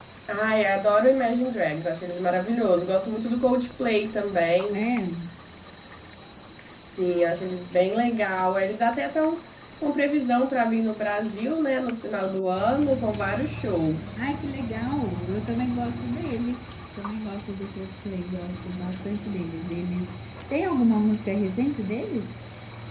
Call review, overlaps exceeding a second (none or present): none